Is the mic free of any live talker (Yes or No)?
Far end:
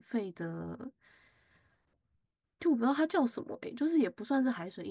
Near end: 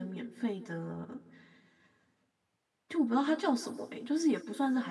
Yes